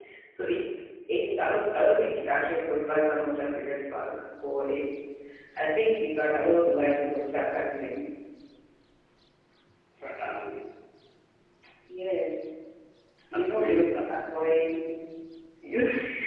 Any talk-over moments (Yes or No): Yes